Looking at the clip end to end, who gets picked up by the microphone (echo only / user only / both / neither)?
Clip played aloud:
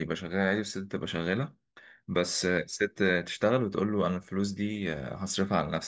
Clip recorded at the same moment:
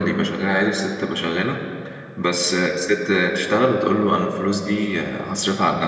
echo only